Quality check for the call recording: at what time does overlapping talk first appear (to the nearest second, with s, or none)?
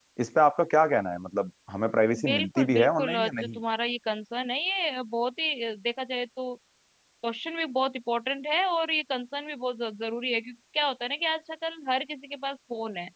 2 s